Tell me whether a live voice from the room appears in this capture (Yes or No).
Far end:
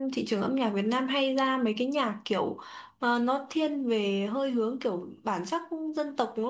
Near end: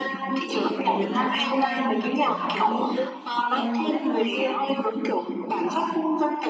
Yes